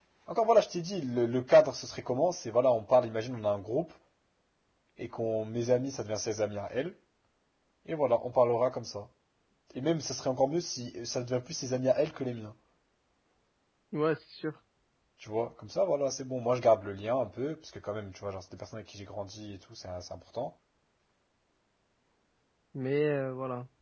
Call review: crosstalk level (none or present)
none